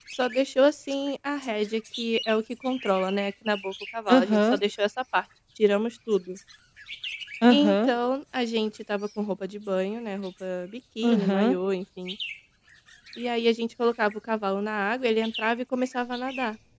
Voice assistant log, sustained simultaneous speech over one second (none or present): none